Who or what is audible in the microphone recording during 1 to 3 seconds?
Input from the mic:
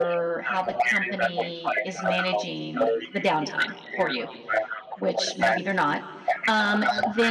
both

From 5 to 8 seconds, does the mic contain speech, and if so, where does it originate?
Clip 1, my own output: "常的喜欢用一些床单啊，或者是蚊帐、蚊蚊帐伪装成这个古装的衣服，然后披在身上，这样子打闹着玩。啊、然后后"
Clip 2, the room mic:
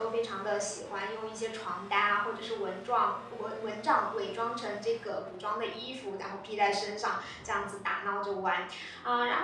echo only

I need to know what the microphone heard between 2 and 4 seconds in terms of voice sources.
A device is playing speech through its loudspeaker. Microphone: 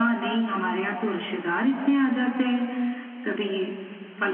echo only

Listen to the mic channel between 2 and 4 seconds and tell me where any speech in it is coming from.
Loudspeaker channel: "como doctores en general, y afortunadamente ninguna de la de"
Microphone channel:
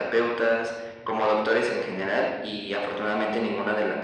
echo only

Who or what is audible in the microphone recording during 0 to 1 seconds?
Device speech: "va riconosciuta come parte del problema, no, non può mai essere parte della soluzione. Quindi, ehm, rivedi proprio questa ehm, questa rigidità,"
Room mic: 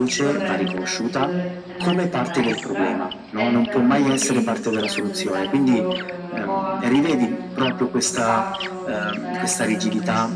both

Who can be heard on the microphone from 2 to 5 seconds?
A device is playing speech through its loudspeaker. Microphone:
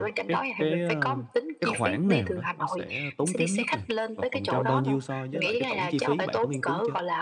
both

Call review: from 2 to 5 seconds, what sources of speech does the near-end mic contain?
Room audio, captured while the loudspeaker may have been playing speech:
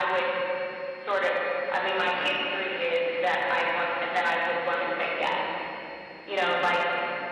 echo only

